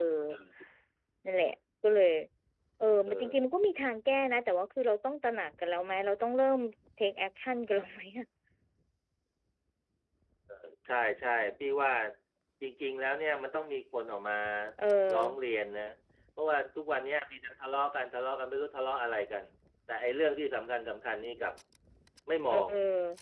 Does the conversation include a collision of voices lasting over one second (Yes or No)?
No